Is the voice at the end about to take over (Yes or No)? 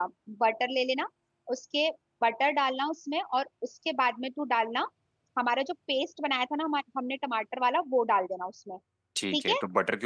Yes